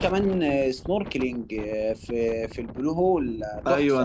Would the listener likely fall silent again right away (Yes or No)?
No